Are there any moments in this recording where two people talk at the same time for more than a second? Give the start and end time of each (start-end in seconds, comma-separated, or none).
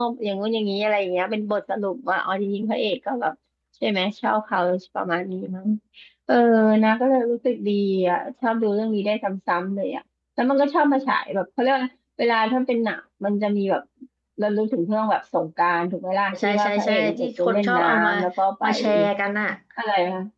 16.4-18.1